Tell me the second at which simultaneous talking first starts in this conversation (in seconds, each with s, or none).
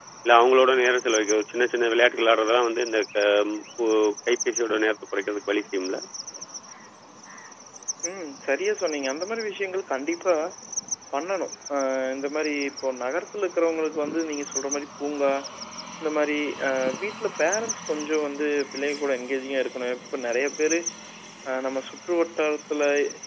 none